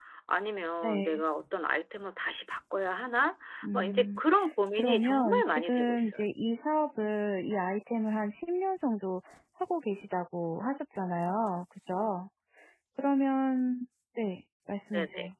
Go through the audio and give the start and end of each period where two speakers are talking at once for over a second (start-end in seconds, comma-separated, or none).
4.8-6.3